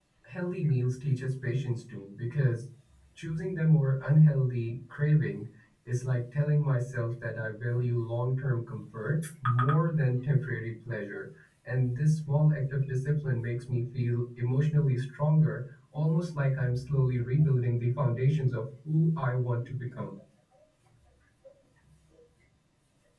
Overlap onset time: none

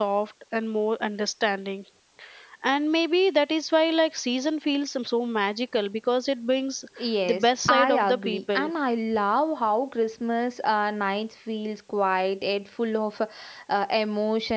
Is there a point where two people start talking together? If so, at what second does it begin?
7 s

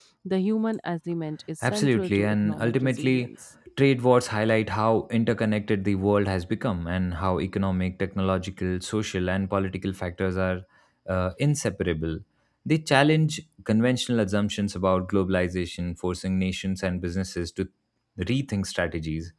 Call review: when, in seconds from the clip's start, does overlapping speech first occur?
2 s

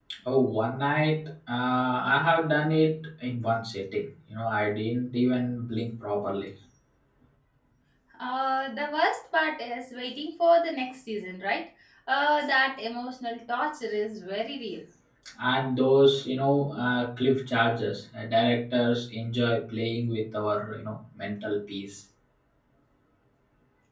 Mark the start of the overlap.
none

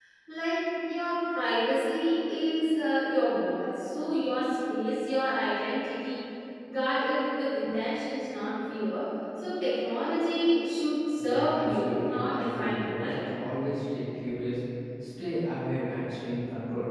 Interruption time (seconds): 11 s

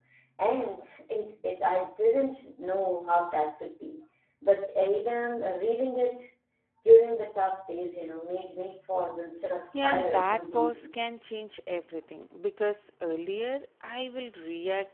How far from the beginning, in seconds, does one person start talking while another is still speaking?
10 s

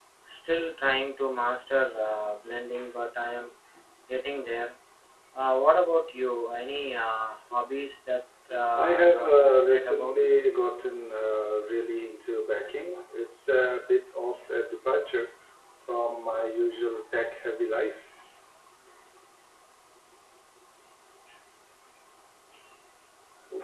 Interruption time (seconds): 9 s

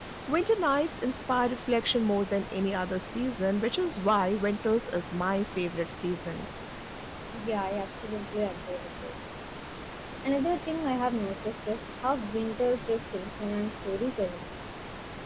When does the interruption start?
none

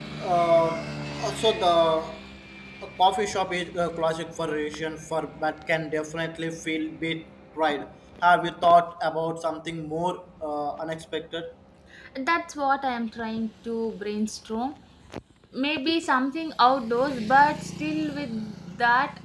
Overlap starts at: none

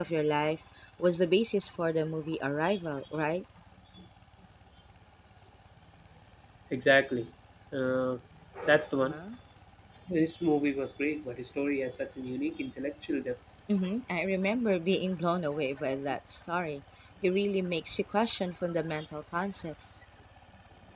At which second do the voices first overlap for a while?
none

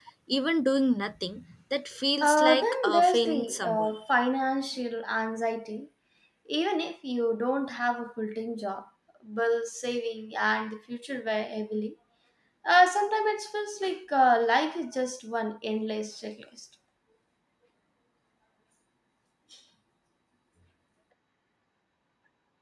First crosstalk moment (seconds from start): 2 s

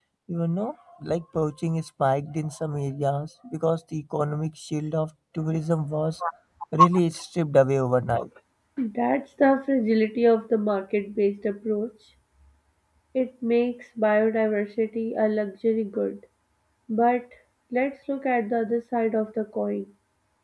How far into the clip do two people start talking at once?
none

